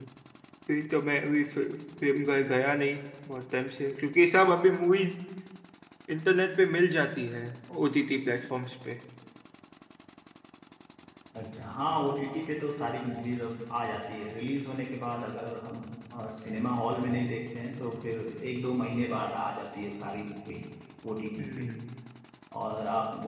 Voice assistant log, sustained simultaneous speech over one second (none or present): none